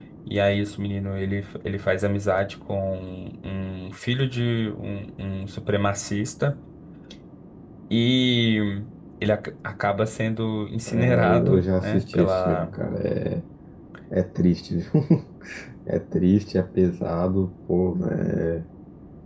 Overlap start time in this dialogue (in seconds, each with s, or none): 10.9 s